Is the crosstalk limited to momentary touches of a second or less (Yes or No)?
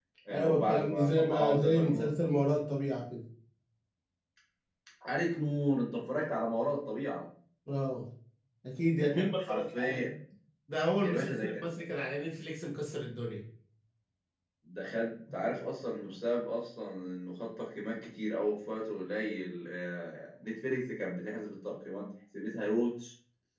No